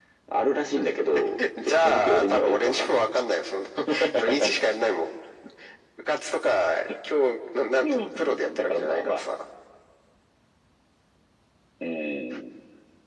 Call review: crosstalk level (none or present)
present